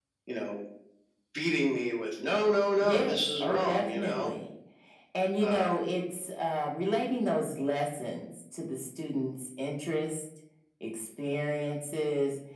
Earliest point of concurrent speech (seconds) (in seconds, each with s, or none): 2.8 s